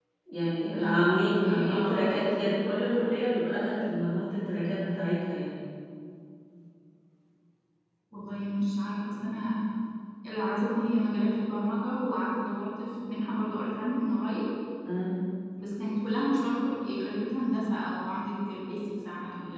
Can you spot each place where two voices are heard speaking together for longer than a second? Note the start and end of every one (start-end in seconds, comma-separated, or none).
0.6-2.3